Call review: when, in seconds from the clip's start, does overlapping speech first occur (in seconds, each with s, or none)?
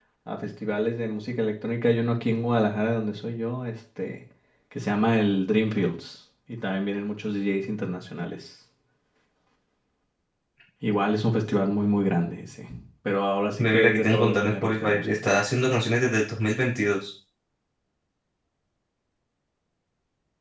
13.6 s